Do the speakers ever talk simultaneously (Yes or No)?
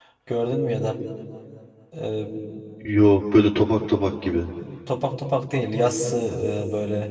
No